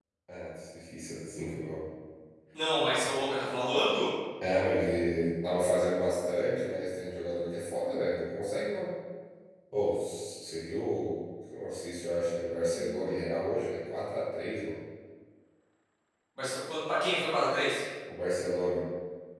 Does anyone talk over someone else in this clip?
No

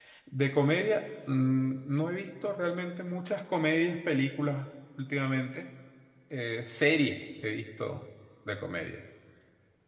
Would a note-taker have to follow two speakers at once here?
No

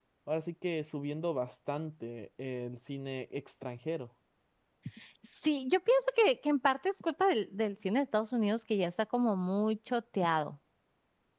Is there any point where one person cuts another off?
No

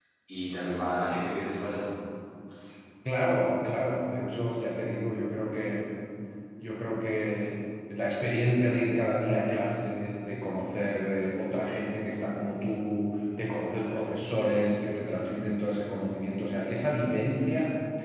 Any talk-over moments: No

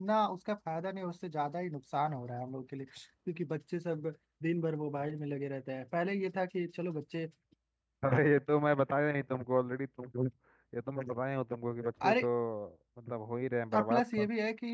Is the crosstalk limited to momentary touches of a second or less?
Yes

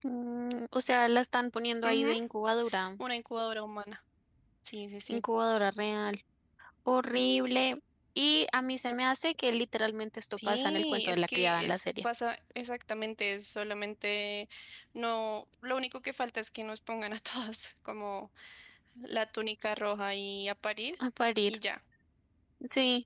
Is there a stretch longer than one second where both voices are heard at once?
Yes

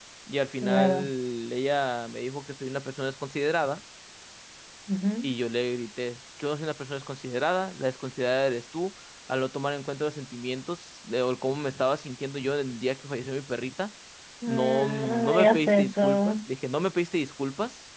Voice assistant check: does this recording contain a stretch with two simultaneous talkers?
Yes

